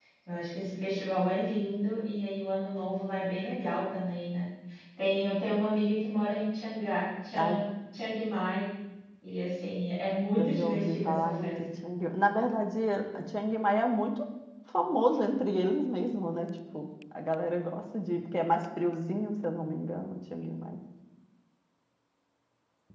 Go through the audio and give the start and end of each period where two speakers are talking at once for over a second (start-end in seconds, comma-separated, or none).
10.4-11.6